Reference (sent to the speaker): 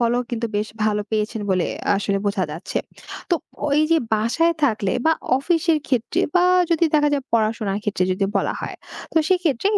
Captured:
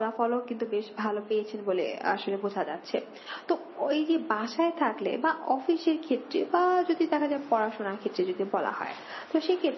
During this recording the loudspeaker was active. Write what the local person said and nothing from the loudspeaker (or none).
none